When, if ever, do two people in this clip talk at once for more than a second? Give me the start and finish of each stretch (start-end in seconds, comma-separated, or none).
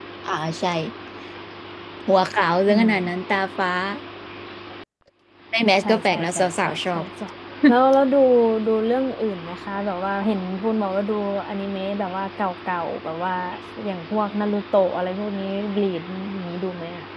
5.8-7.0